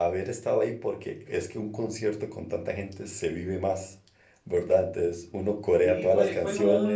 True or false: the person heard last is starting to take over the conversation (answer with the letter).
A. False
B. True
B